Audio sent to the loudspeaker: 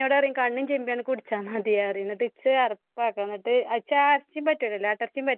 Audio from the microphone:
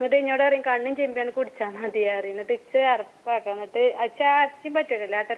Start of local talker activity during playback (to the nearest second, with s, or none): none